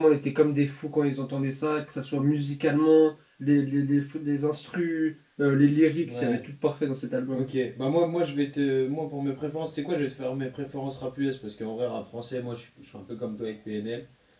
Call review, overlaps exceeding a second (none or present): none